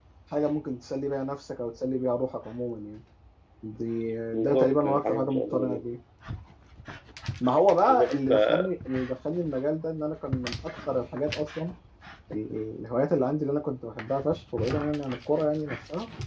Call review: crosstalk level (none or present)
present